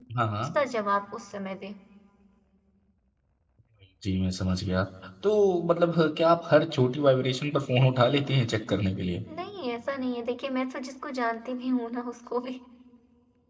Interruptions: none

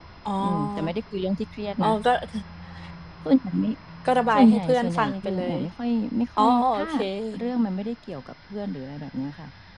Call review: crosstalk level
present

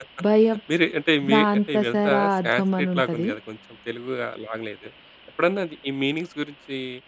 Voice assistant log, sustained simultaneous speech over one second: present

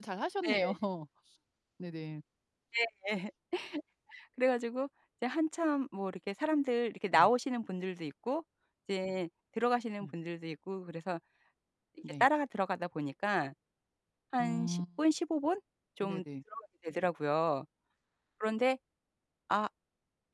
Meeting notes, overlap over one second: none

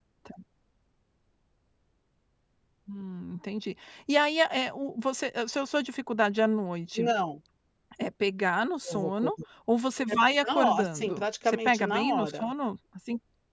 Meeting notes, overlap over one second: present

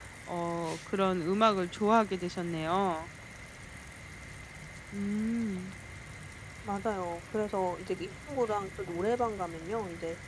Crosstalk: none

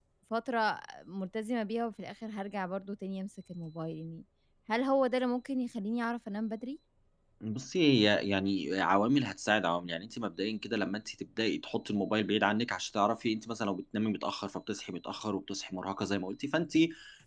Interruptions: none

